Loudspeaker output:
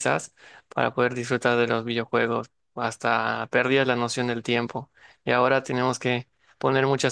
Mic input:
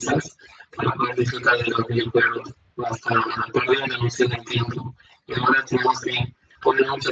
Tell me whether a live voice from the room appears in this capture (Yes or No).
No